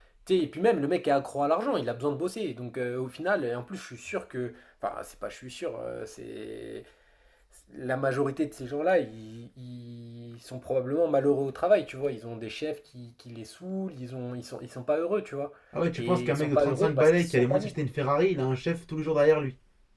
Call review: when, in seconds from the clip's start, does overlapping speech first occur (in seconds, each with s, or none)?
15.9 s